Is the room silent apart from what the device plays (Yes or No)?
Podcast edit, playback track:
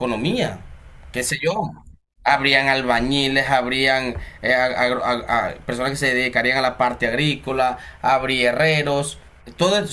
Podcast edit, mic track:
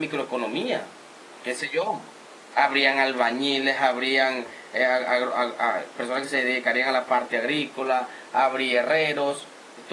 Yes